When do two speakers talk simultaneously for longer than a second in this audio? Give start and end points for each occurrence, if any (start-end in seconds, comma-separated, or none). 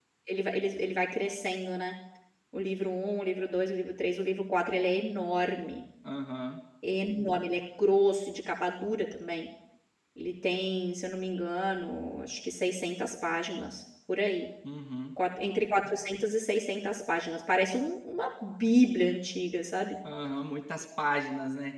none